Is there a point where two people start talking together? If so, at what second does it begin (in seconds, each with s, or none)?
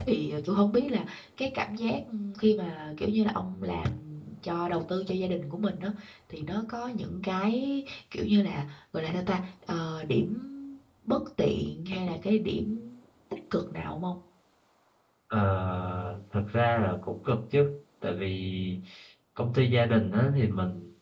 none